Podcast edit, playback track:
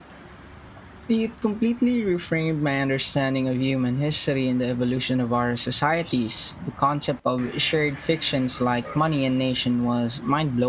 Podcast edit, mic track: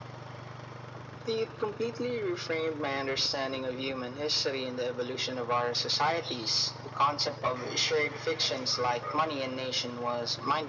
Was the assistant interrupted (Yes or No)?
No